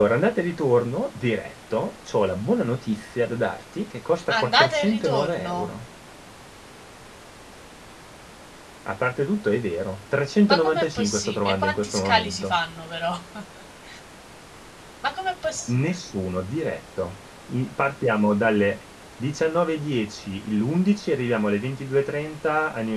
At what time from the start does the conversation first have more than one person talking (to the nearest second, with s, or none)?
4 s